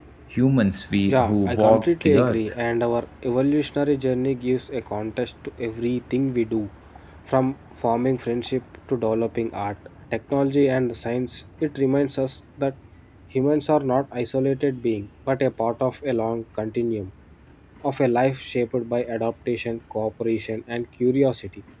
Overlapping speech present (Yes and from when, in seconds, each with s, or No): Yes, from 1.1 s